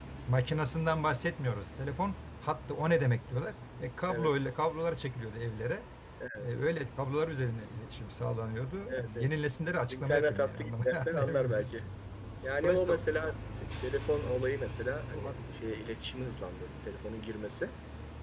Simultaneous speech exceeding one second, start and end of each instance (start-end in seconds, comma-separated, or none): 9.9-11.7